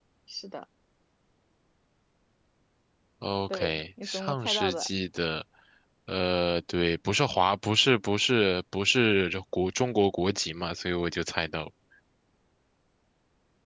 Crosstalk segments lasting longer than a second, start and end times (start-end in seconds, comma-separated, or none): 3.5-4.9